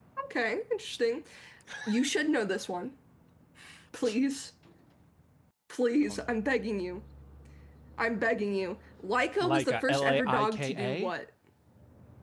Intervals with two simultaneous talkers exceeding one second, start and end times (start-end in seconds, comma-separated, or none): 9.4-11.1